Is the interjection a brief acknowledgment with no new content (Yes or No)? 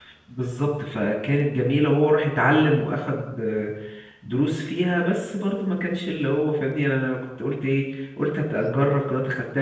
Yes